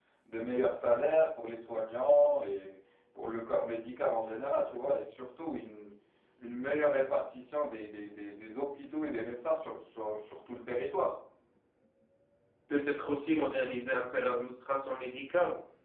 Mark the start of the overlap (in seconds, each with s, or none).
none